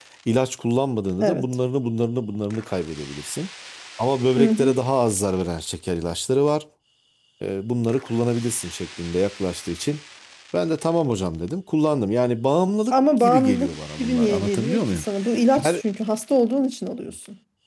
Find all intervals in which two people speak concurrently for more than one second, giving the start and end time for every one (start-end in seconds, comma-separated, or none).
12.9-15.0